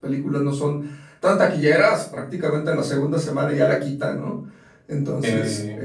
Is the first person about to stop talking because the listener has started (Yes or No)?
No